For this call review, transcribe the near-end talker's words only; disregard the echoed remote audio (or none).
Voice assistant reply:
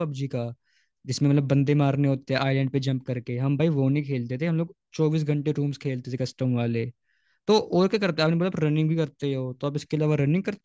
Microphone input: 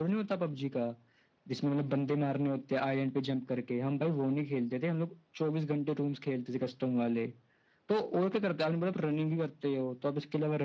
none